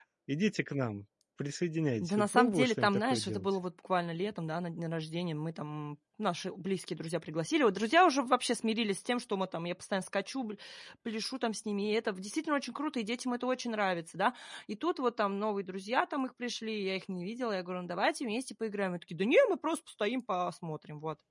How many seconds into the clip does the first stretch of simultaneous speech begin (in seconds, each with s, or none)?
2.0 s